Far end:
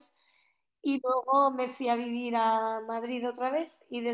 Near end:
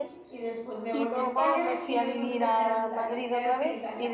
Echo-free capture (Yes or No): No